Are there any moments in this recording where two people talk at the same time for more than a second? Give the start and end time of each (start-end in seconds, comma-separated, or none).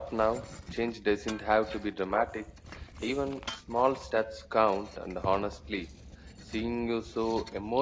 none